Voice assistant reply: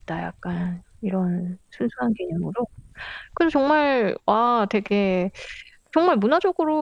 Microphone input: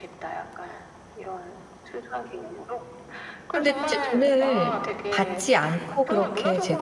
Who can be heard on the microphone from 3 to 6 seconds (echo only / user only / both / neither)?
both